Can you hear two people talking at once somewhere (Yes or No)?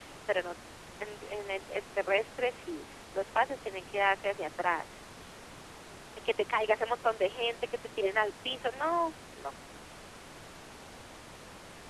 No